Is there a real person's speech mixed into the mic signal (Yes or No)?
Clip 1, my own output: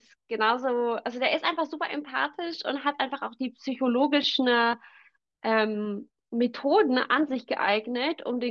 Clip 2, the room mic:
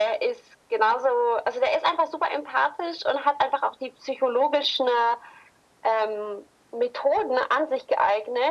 No